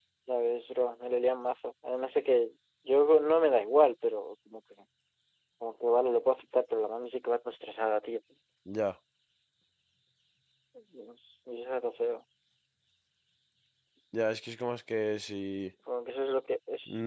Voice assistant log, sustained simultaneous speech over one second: none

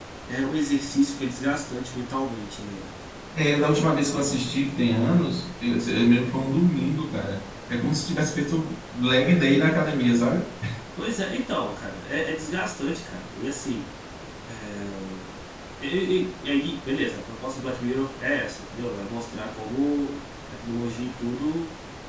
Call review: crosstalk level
none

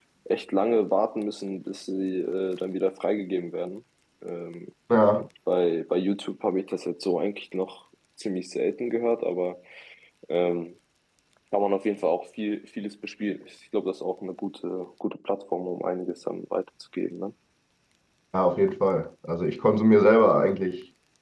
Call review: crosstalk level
none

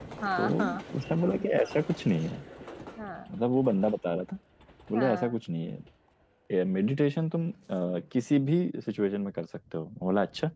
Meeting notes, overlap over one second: none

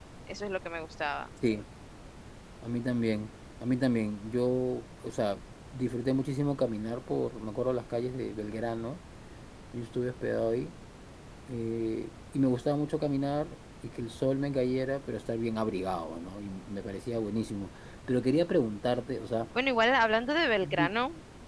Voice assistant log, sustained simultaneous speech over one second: none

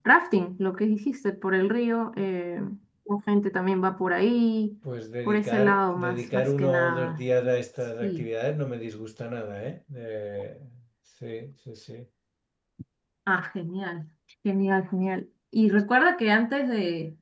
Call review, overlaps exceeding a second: present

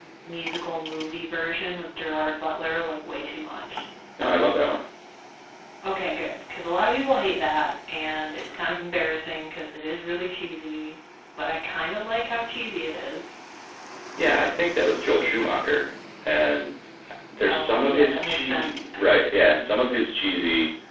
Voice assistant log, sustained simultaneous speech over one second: present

